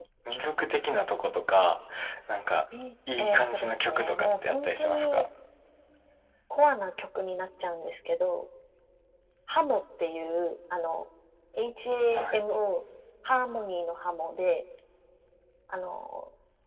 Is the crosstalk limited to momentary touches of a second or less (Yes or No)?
No